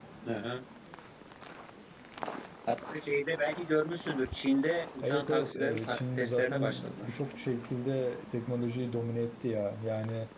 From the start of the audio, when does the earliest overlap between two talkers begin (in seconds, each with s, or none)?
5.0 s